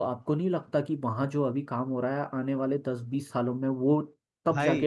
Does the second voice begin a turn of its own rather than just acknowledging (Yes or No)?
Yes